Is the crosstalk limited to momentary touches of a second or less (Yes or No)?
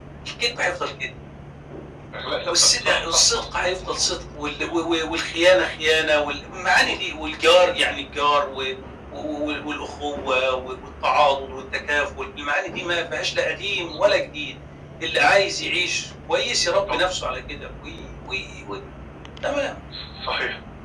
No